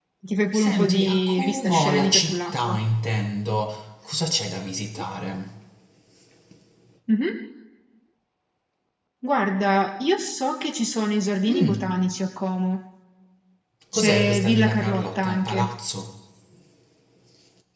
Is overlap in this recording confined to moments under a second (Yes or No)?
No